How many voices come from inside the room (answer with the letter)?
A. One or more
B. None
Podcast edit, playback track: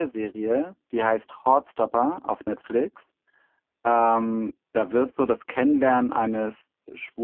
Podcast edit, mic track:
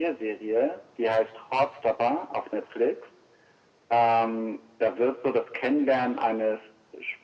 B